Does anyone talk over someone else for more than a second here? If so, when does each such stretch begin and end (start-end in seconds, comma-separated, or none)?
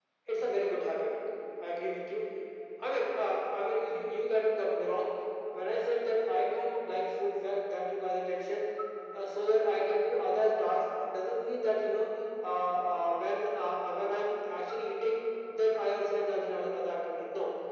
none